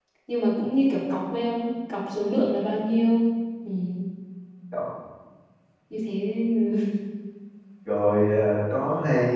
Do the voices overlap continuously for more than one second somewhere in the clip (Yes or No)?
No